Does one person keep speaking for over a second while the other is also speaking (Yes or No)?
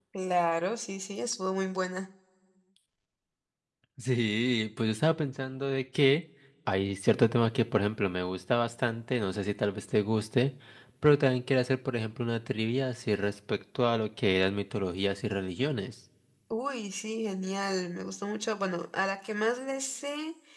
No